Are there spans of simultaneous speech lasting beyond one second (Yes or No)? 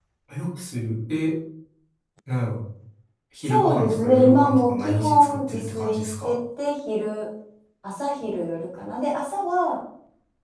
Yes